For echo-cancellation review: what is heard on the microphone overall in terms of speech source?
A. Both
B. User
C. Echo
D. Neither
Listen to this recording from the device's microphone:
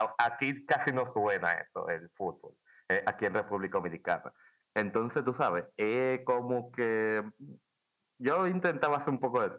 C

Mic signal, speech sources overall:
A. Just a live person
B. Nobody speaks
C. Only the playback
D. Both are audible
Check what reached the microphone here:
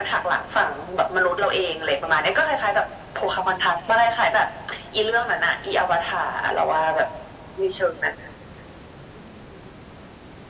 C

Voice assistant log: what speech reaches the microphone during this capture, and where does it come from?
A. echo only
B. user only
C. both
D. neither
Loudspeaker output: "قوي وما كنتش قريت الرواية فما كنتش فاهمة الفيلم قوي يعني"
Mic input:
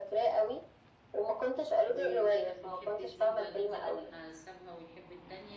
C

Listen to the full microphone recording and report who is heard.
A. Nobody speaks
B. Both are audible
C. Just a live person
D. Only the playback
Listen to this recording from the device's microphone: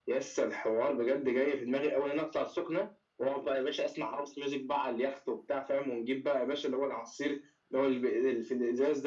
D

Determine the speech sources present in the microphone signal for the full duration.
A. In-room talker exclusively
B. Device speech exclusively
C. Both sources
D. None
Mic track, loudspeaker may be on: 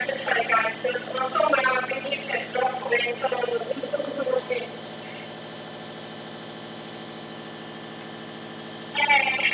B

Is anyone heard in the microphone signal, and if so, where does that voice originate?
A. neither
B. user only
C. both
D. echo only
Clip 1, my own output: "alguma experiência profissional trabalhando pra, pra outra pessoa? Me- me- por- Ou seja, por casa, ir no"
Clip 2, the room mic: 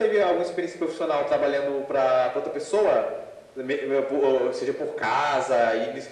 D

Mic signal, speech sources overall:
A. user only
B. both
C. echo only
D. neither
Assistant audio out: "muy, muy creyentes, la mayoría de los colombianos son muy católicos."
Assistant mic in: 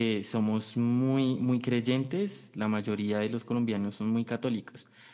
C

